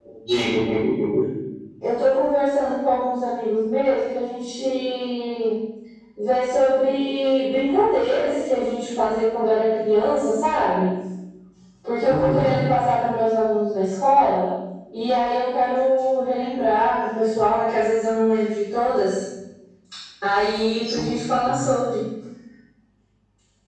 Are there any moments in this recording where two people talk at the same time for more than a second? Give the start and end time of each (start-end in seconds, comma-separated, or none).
none